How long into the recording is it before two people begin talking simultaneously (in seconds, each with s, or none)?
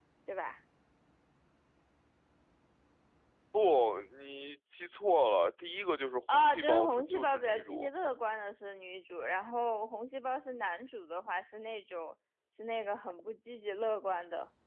6.3 s